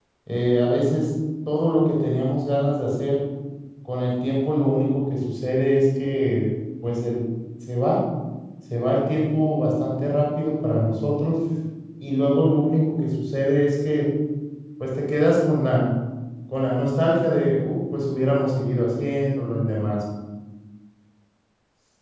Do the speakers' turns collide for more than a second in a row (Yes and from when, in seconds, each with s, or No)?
No